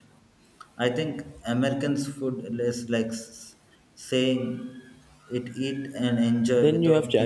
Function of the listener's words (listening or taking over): taking over